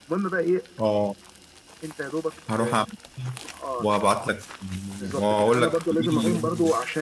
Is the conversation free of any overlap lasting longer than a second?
No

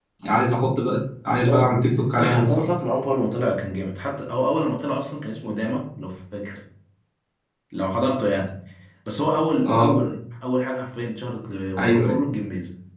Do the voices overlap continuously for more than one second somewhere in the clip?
No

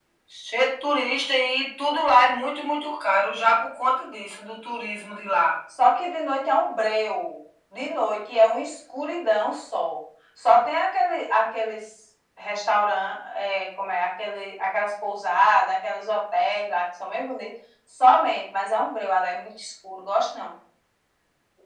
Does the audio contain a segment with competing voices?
No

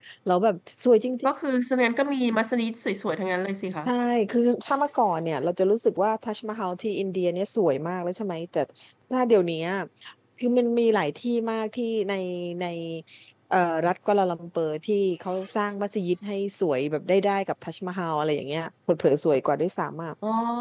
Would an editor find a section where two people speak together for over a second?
No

